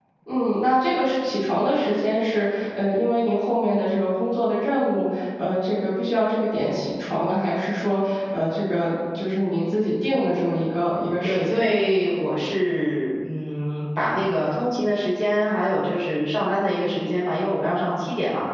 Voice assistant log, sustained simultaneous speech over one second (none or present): none